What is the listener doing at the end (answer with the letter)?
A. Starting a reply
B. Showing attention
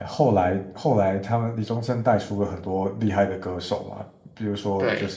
B